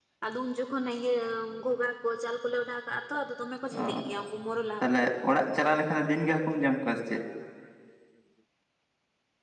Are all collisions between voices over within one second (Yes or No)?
Yes